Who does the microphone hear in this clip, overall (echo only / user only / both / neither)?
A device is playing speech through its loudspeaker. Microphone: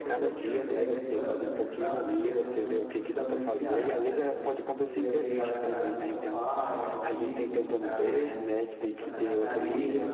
both